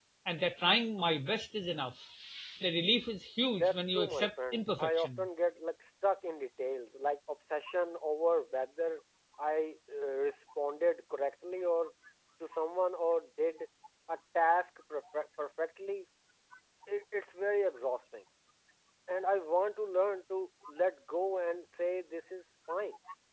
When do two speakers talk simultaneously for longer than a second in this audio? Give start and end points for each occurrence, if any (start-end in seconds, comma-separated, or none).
3.6-5.3